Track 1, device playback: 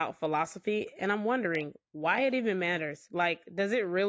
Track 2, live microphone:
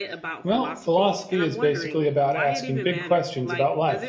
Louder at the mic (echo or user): user